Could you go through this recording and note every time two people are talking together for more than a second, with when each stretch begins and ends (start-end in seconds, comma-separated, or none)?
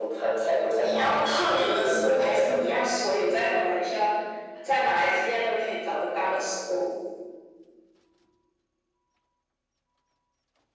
0.8-2.5